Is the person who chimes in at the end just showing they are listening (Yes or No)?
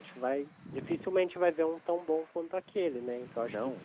Yes